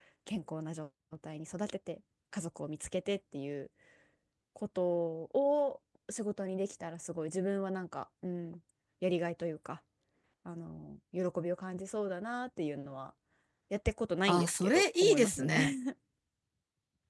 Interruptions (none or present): present